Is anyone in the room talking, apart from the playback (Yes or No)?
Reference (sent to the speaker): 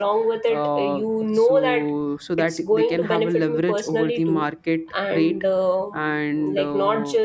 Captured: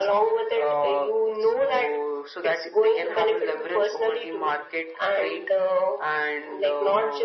No